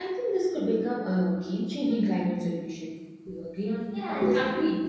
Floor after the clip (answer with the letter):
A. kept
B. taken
B